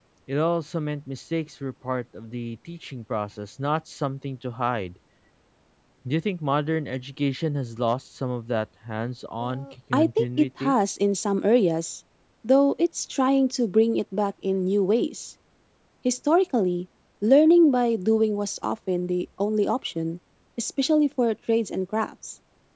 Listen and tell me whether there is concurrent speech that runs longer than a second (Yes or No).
Yes